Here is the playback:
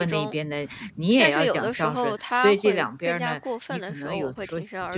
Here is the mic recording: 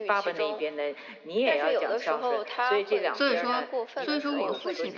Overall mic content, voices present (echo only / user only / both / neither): both